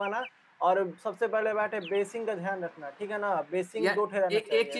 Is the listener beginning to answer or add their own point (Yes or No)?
Yes